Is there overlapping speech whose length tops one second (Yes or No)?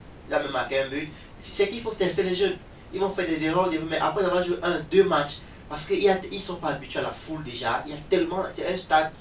No